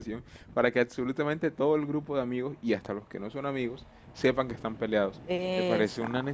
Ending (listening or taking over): listening